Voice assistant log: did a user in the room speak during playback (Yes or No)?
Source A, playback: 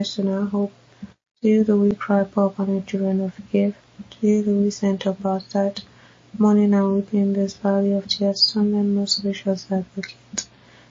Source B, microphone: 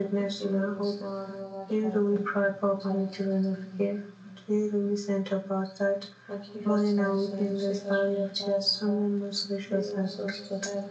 Yes